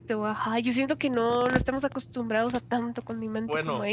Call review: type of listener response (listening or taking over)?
taking over